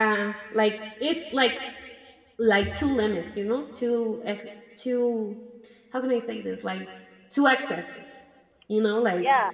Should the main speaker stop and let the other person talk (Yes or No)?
Yes